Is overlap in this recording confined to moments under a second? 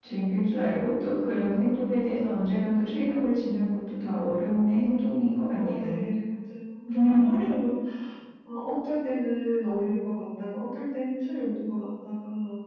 Yes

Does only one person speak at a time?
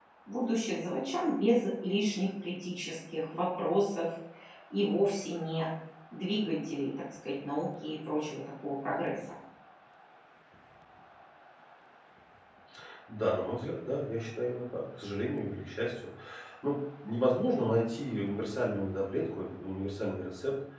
Yes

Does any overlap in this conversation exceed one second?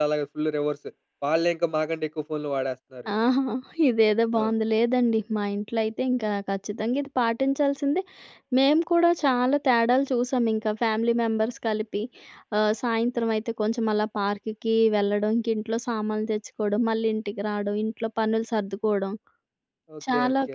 No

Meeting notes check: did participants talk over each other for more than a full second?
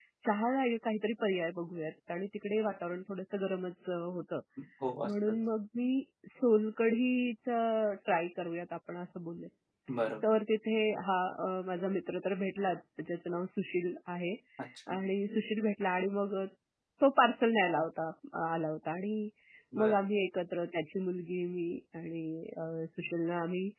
No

